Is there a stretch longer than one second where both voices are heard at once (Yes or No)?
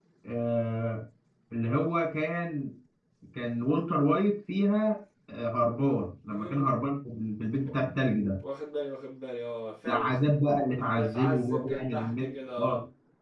Yes